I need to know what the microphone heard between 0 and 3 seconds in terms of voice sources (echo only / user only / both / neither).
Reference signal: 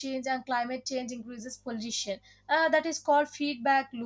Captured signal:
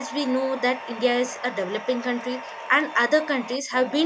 user only